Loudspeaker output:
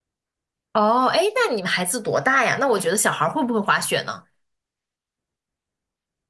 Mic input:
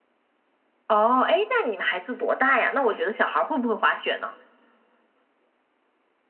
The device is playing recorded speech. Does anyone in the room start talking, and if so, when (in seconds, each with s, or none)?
none